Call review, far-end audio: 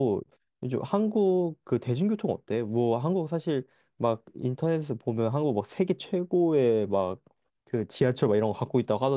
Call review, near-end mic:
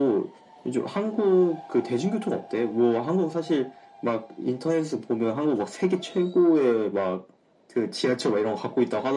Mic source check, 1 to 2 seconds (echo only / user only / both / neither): echo only